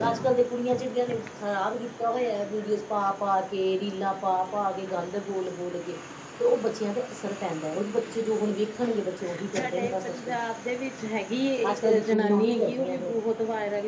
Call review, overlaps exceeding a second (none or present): present